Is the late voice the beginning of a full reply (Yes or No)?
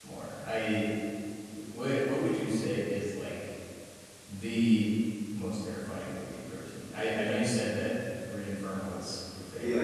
Yes